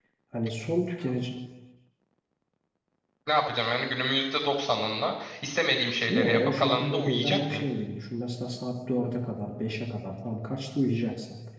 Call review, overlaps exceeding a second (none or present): present